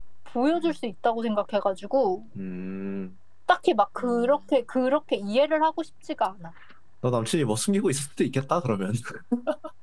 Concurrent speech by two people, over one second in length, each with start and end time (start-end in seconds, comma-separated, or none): none